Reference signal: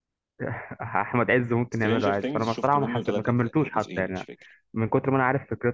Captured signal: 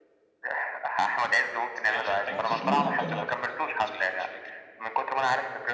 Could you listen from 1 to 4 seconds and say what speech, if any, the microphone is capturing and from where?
both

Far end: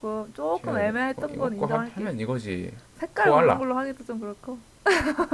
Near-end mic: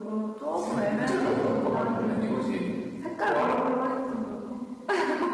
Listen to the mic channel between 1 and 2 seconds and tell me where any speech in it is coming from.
both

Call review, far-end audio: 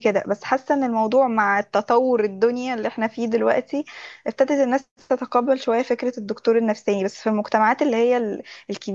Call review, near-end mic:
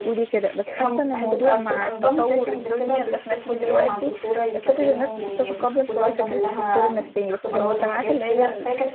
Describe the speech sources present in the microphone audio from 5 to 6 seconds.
both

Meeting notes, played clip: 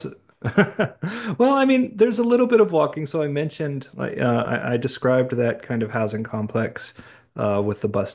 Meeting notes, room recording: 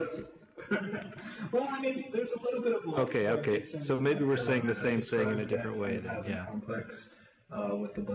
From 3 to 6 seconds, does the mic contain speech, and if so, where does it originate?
both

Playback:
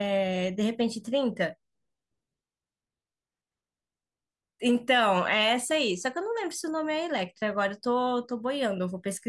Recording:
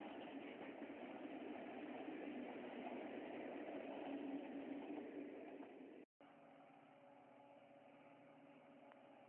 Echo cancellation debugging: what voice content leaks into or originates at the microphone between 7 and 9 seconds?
neither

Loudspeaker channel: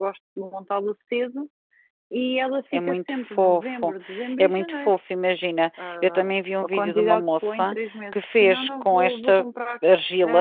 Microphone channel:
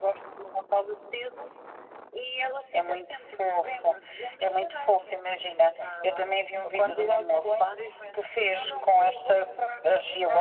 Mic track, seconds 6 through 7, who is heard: both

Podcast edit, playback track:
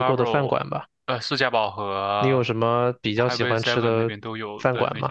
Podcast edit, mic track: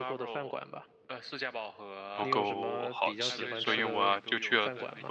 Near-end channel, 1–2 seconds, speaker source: echo only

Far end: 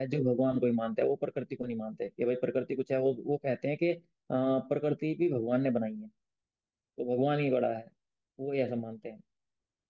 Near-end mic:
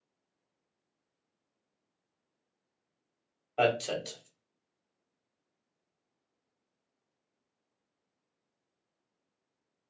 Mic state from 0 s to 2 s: neither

